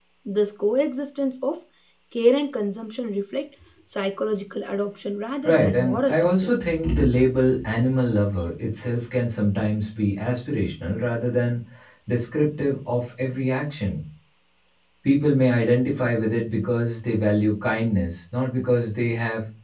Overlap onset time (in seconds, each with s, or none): 5.4 s